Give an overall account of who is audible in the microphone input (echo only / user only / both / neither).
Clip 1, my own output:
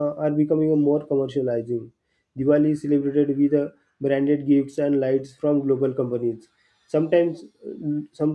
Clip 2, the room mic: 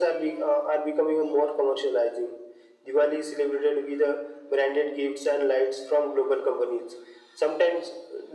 echo only